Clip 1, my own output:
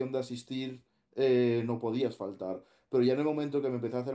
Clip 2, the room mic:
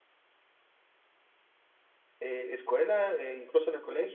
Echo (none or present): none